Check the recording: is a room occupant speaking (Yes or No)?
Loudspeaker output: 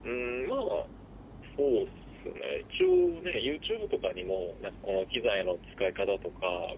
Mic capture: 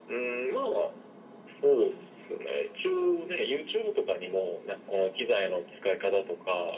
No